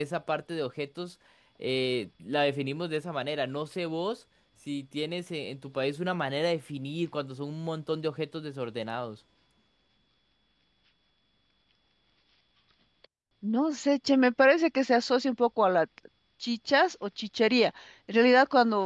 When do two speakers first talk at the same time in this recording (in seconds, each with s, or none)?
none